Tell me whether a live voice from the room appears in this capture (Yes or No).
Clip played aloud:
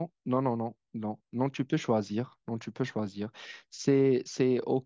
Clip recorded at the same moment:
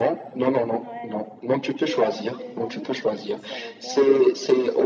Yes